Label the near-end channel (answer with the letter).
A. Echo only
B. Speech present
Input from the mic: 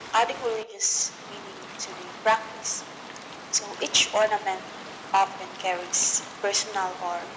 A